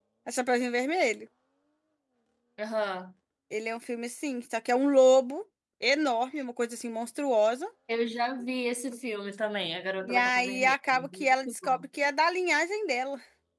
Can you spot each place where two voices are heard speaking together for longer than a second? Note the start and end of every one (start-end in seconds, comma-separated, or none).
10.0-11.8